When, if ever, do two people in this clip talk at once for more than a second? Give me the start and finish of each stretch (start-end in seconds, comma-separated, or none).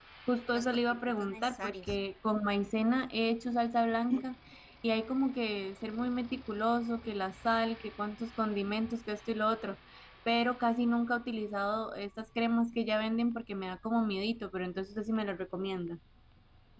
0.5-1.9